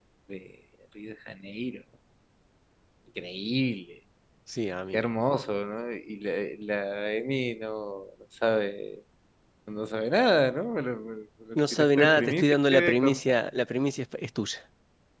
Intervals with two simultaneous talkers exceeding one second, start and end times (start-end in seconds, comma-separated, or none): 11.6-13.4